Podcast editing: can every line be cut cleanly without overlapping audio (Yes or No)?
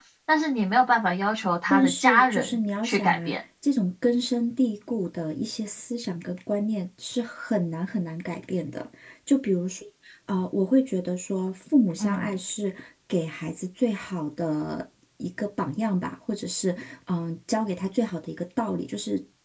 No